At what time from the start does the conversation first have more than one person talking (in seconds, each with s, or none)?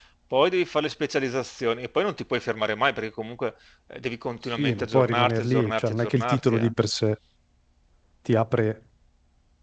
4.6 s